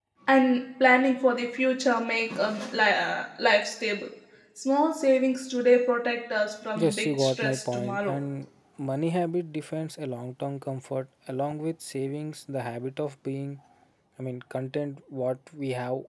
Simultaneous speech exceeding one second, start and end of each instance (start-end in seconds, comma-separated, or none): 6.8-8.2